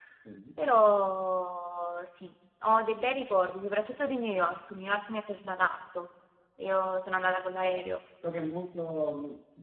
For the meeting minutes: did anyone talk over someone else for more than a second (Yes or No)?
No